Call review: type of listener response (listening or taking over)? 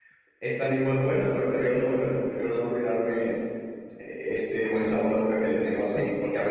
listening